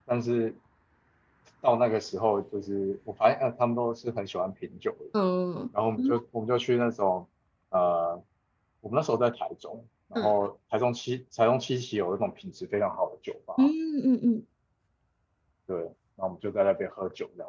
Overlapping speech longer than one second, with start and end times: none

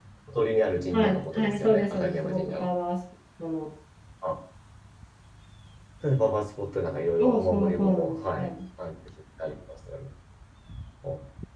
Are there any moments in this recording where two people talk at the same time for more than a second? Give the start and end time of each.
0.9-2.7, 7.2-8.5

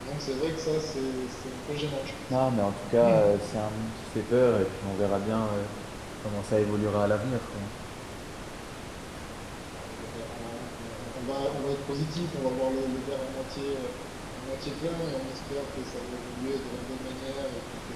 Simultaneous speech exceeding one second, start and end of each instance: none

